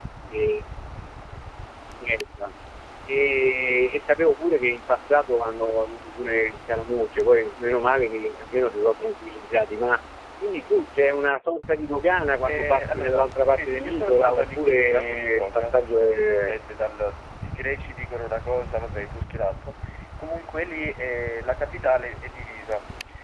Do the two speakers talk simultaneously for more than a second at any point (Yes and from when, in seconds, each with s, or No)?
Yes, from 12.4 s